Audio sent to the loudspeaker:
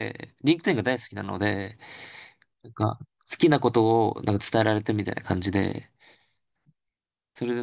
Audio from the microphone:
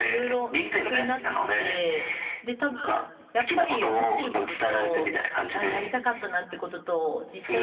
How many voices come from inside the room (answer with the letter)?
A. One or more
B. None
A